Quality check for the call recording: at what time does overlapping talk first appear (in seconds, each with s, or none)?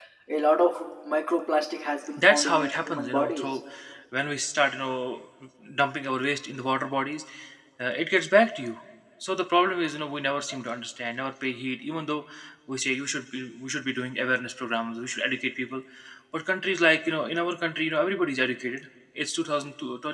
2.2 s